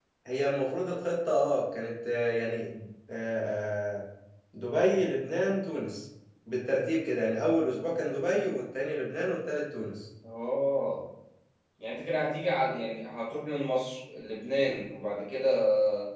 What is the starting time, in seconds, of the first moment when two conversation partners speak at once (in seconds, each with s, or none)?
none